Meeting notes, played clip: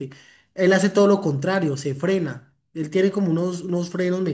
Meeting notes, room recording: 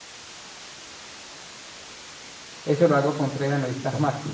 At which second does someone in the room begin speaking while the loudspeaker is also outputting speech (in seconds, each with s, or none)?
2.6 s